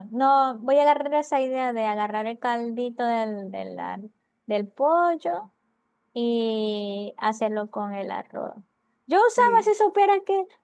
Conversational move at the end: listening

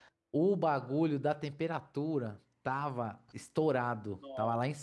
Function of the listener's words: listening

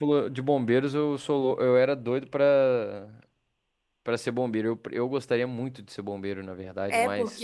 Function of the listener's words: taking over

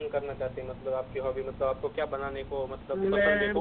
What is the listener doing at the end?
taking over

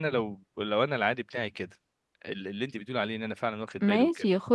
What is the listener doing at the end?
taking over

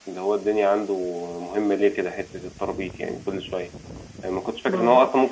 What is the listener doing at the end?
listening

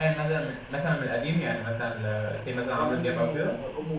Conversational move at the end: taking over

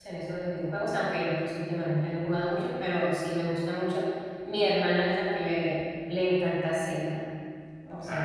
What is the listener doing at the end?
taking over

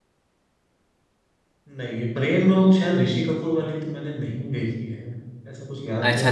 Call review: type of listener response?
taking over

